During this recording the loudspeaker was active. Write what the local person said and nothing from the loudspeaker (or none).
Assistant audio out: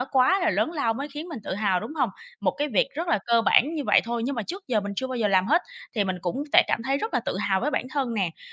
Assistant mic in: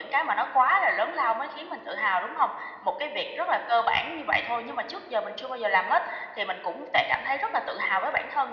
none